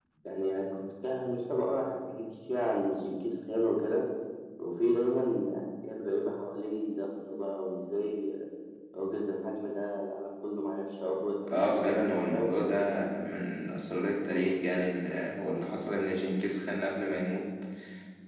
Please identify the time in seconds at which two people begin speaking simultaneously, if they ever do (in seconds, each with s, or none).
11.5 s